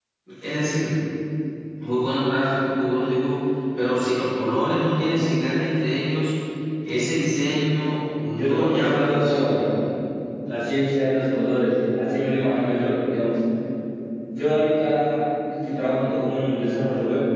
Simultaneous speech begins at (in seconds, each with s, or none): 8.3 s